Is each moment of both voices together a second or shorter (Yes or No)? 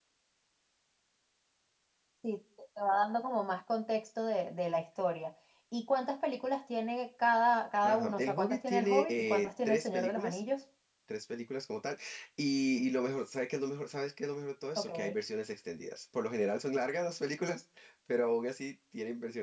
No